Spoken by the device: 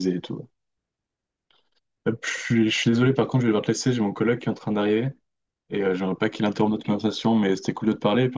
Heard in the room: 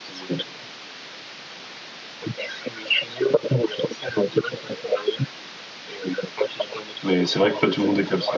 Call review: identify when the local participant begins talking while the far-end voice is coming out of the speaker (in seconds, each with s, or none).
7.0 s